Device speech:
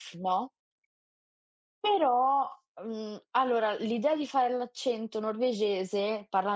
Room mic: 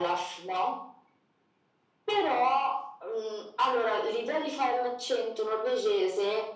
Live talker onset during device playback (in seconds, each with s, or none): none